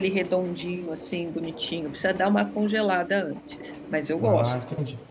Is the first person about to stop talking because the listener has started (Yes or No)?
Yes